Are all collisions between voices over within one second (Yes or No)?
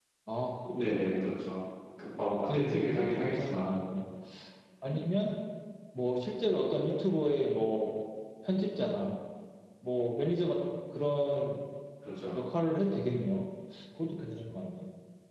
No